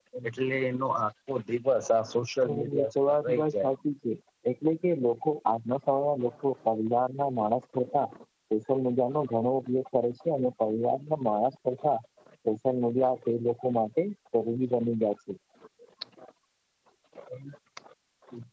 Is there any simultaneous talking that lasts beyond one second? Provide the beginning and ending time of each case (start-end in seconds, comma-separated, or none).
2.4-3.7